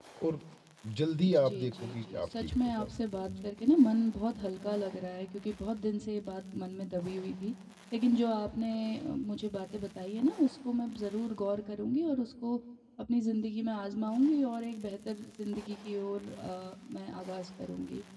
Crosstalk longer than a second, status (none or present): present